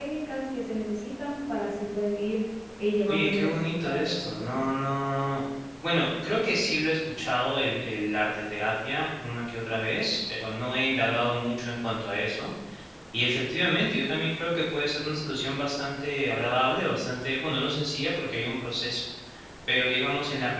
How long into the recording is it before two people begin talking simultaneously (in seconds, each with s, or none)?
3.1 s